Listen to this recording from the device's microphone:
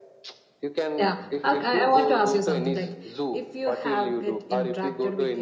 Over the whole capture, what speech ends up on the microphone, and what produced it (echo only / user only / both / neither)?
both